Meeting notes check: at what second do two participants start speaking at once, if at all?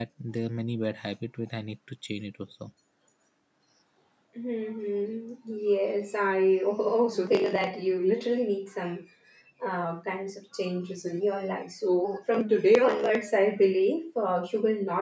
none

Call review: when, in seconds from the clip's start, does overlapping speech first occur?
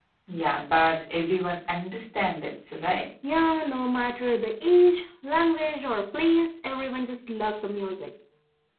none

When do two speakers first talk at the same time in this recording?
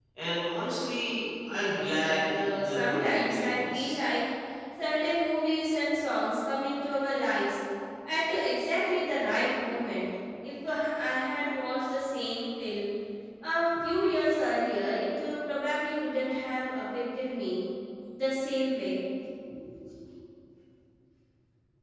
1 s

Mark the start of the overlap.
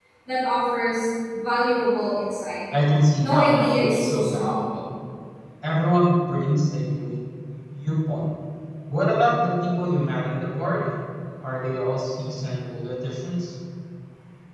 3 s

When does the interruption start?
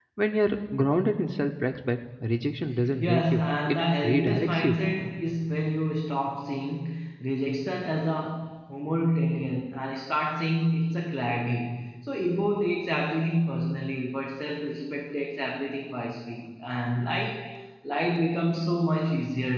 3 s

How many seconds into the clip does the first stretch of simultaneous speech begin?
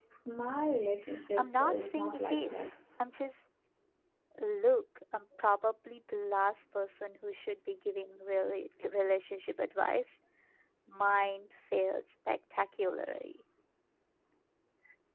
1 s

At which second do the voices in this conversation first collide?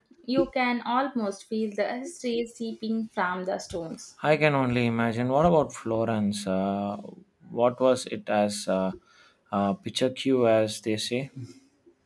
none

